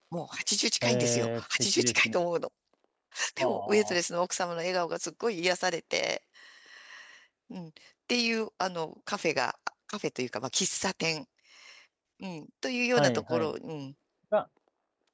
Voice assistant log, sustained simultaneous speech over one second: present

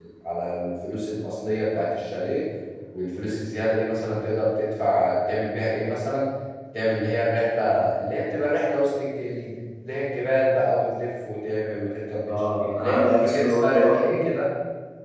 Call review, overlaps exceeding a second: present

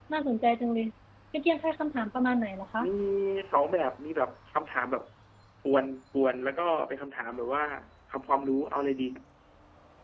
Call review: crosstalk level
none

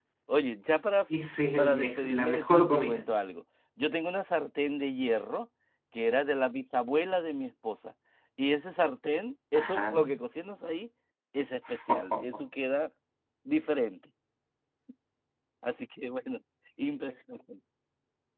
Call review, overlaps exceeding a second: present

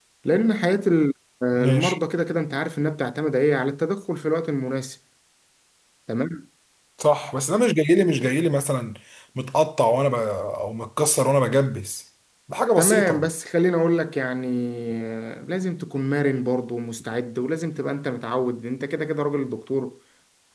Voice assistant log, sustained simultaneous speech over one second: none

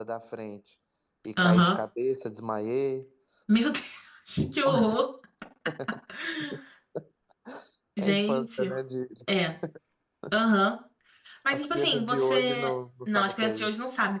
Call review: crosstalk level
present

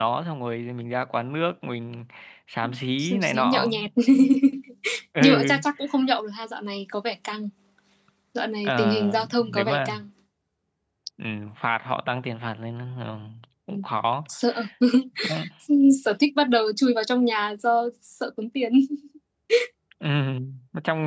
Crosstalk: present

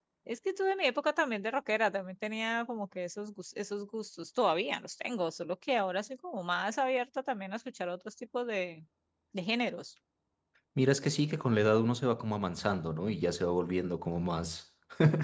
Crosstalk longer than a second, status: none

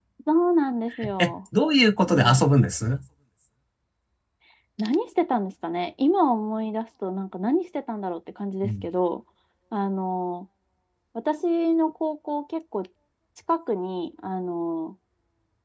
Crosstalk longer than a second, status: none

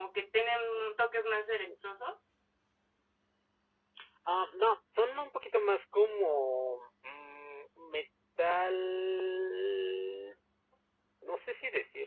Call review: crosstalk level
none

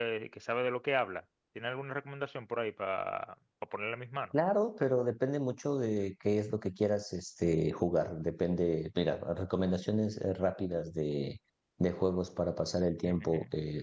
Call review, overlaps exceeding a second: none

